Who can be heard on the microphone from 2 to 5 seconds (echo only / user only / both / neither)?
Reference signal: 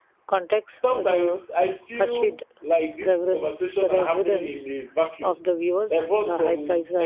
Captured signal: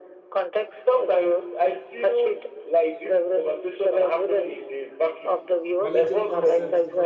echo only